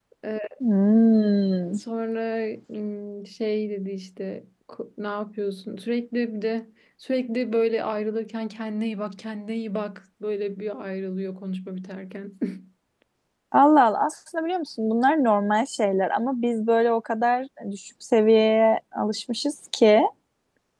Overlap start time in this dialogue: none

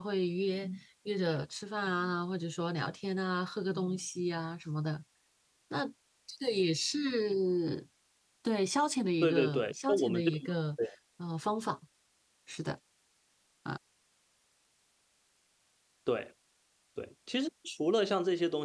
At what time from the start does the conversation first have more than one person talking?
9.2 s

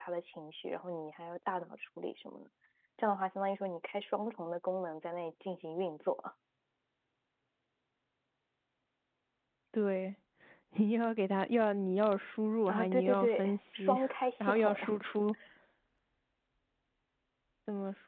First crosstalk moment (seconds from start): 12.7 s

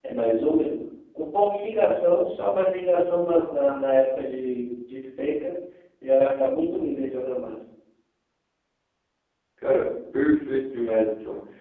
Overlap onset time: none

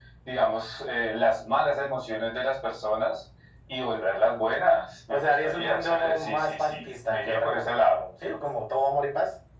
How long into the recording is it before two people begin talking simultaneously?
5.1 s

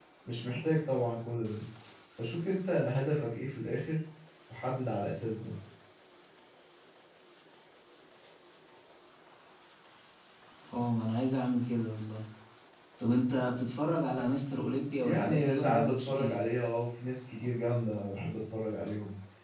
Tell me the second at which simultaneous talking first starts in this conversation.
15.0 s

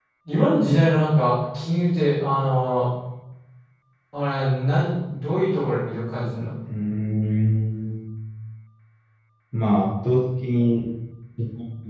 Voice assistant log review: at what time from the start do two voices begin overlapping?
none

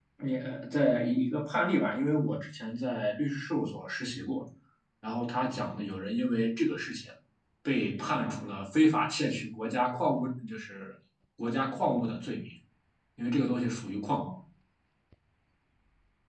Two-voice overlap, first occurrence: none

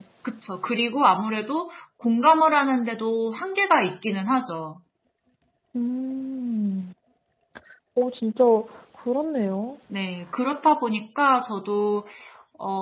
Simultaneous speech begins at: none

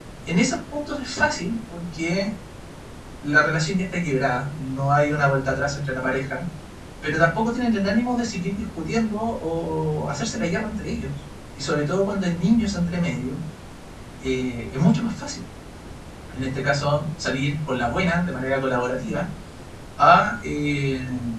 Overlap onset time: none

